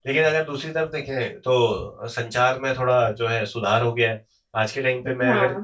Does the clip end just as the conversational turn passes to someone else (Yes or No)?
No